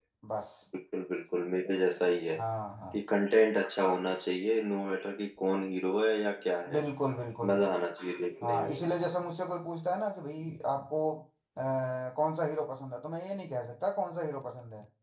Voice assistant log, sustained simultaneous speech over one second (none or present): none